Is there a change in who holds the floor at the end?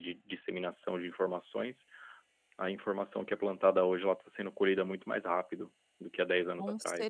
Yes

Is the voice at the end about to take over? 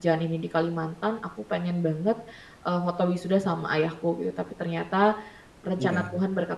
No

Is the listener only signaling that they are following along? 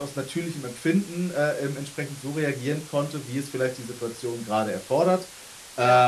Yes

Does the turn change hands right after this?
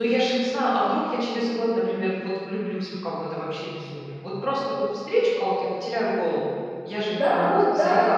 Yes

